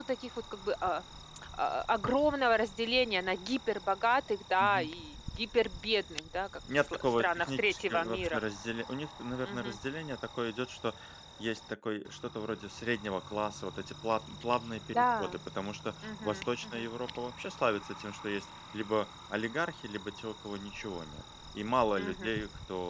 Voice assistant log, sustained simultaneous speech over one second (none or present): present